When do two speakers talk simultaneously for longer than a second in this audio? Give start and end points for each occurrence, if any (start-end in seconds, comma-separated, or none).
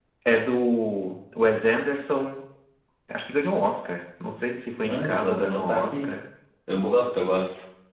4.9-6.1